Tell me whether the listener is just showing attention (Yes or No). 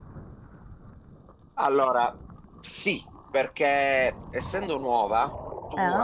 Yes